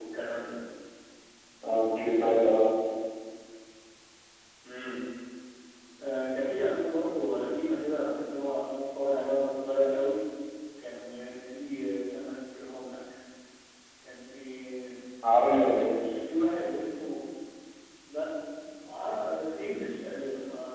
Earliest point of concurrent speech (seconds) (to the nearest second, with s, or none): none